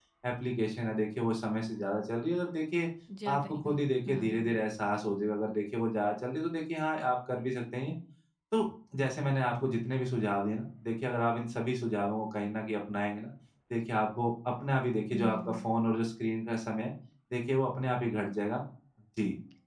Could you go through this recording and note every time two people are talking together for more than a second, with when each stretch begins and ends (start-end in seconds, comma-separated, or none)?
3.3-4.5